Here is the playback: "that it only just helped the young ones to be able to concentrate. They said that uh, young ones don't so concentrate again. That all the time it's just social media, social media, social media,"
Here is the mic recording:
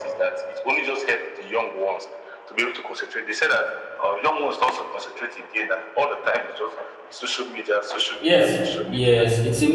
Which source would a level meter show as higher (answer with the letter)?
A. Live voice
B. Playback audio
A